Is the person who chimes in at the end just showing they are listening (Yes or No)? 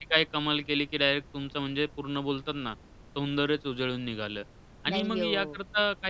Yes